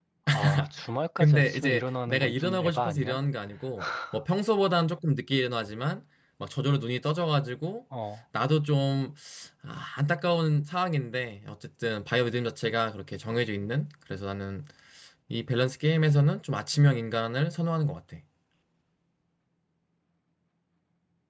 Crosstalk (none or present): present